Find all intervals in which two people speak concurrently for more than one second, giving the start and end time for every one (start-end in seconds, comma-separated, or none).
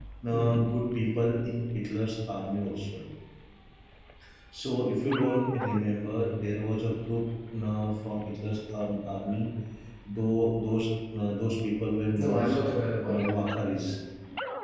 none